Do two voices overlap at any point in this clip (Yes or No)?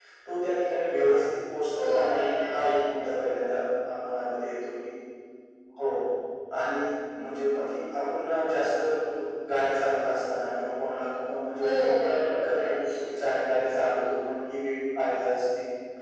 Yes